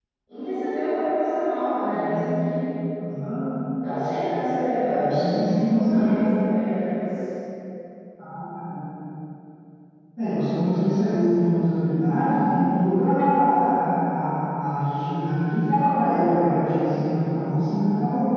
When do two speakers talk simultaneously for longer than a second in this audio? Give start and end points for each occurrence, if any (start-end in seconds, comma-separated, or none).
4.9-6.2